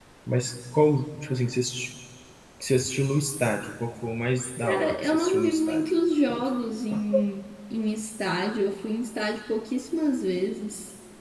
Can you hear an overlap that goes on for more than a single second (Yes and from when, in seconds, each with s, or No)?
Yes, from 4.6 s